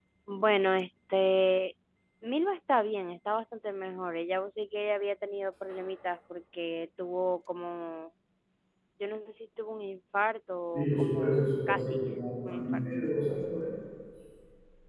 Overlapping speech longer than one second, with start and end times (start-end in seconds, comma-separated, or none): 10.7-12.0